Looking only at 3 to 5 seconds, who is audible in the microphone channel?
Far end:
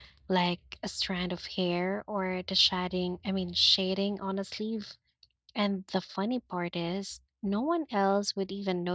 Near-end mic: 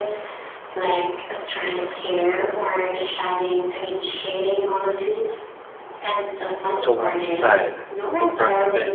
echo only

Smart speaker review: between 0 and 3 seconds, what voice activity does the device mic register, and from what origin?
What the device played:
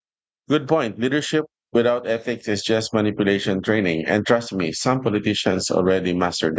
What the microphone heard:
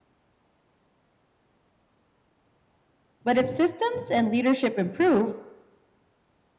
neither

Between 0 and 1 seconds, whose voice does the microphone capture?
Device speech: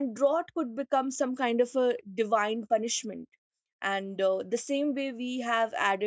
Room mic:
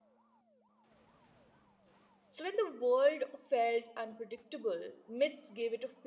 neither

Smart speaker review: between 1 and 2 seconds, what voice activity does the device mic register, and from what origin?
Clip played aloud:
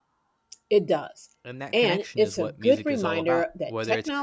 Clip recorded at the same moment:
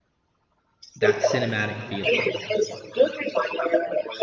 both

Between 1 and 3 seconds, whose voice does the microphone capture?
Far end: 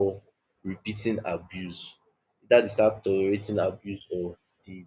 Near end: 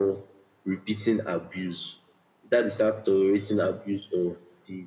echo only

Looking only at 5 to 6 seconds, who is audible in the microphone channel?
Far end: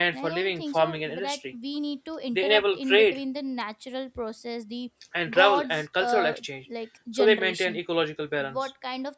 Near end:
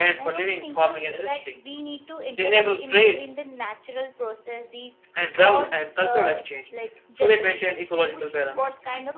echo only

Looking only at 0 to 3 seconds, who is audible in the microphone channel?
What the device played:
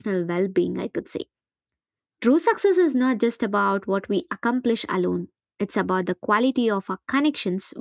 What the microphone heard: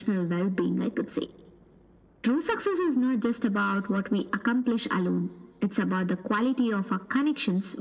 echo only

